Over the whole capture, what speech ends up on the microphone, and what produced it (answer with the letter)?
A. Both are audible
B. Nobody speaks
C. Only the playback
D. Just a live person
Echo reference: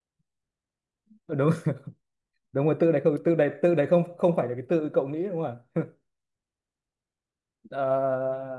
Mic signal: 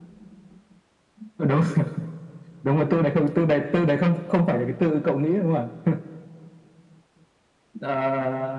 C